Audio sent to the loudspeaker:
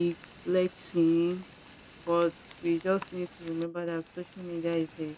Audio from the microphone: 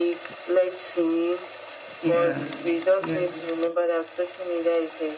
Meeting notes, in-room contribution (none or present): present